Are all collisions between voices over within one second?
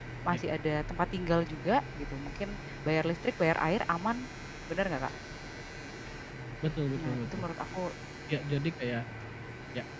Yes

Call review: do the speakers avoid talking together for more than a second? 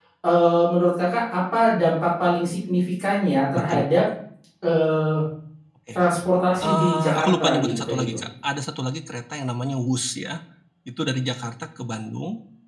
No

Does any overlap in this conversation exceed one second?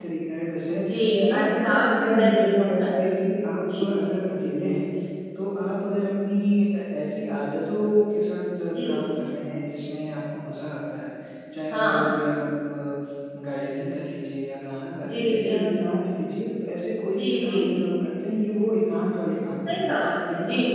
Yes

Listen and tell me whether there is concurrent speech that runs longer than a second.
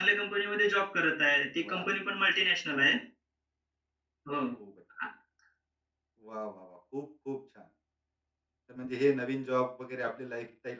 No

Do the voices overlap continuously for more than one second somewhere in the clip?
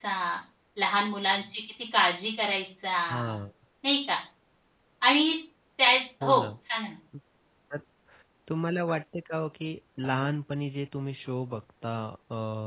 No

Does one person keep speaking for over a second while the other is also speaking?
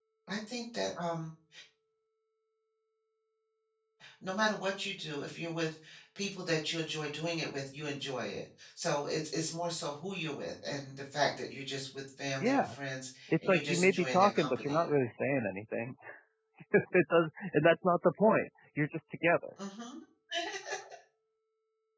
Yes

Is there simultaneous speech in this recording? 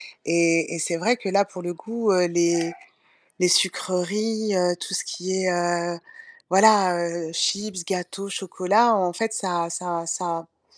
No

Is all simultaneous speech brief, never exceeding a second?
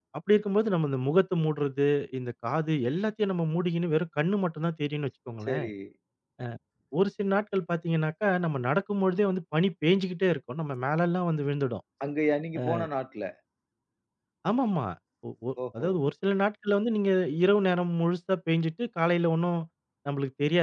Yes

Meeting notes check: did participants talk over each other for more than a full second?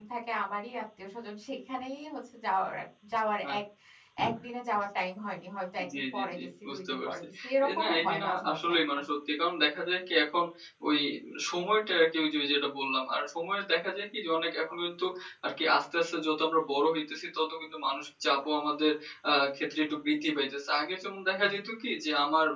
Yes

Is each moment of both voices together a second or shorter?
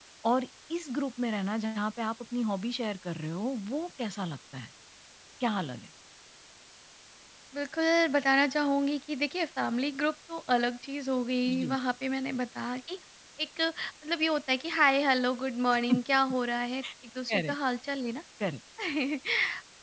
Yes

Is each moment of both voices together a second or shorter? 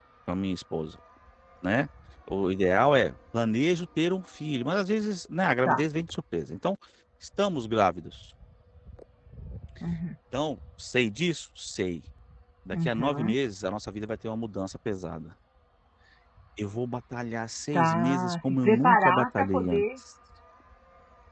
No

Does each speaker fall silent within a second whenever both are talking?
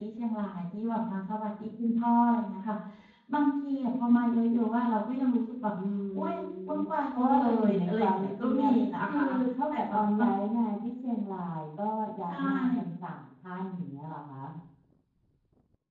No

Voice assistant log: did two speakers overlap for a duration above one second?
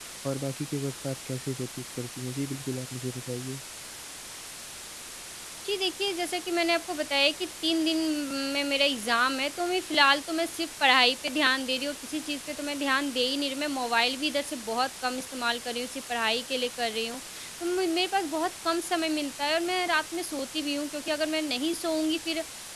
No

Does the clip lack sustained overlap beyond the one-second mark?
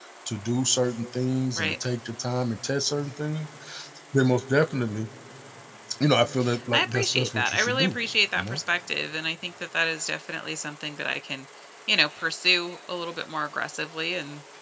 No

